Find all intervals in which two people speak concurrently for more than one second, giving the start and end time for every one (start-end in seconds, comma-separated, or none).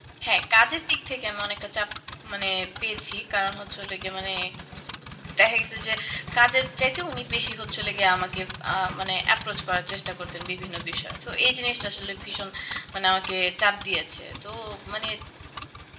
none